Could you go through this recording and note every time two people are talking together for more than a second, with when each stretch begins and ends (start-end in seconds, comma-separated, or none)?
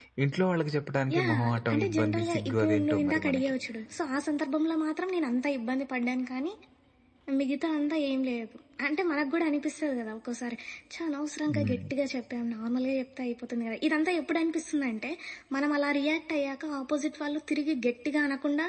1.2-3.5